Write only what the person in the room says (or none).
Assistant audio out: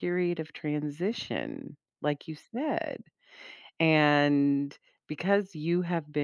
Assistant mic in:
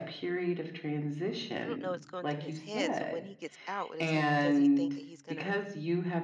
I don't know what's going through his head. So when he gets out, what is he, does he think that he's gonna